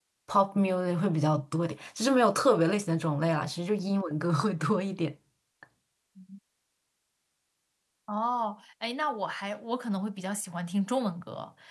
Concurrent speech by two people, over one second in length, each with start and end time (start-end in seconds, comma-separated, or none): none